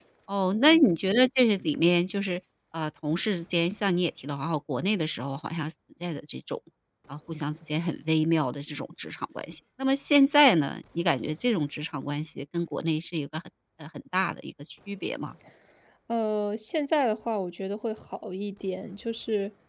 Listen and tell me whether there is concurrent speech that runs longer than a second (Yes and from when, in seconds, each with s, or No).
No